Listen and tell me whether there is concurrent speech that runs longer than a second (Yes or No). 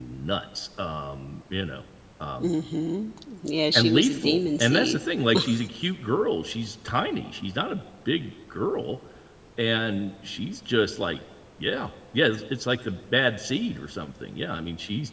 Yes